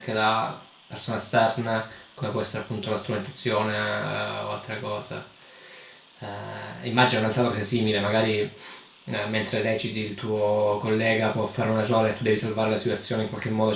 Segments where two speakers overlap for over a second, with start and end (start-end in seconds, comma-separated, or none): none